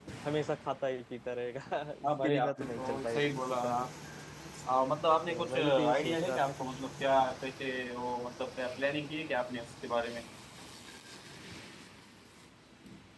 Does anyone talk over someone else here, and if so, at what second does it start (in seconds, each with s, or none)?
2.1 s